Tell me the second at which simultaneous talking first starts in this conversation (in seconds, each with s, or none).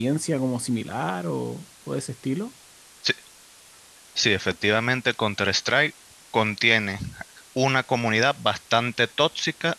none